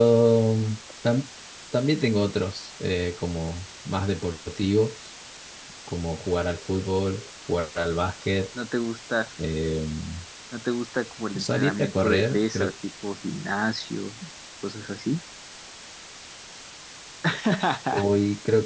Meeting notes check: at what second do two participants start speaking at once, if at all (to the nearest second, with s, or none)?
11 s